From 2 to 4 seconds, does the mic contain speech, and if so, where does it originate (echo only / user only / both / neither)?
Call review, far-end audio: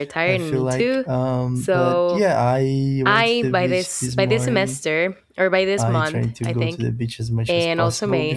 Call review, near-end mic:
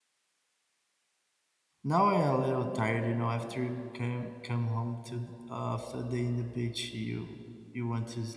user only